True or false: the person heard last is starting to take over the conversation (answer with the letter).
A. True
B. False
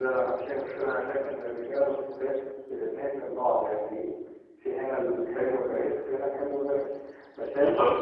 B